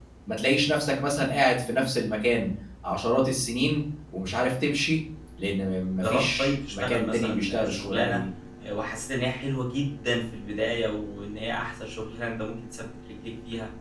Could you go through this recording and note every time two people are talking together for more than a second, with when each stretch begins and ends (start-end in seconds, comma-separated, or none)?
6.0-8.2